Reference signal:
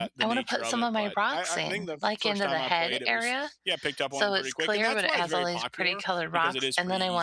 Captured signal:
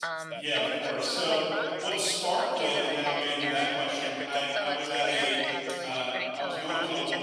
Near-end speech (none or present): present